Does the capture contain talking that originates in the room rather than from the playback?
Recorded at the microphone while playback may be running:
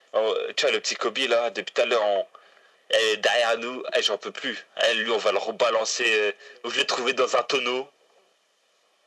No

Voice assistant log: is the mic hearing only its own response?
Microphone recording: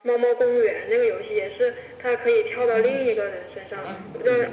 No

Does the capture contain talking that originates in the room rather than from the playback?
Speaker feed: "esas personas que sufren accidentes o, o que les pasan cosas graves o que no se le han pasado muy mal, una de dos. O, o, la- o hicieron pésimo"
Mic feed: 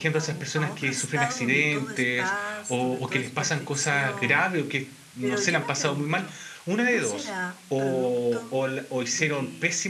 Yes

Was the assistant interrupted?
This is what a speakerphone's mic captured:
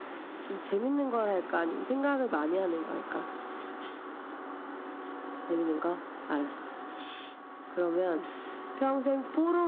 No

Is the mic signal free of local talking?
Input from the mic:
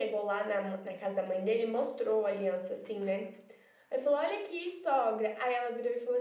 Yes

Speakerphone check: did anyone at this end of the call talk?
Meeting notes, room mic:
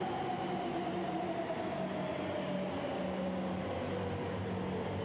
No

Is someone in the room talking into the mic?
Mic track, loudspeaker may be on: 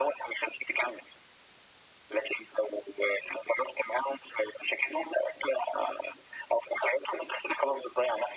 No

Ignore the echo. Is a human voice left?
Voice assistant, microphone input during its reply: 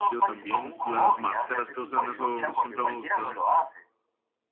Yes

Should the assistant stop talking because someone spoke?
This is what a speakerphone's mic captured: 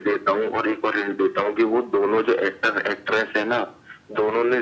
No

